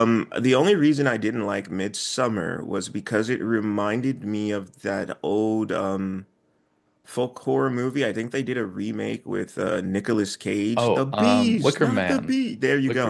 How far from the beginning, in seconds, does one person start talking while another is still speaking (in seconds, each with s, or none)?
10.8 s